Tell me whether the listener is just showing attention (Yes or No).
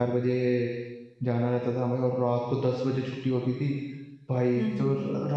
Yes